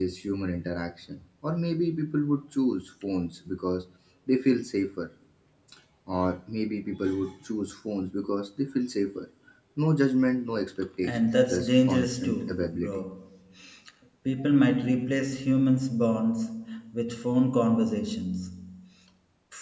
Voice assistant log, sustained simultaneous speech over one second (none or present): present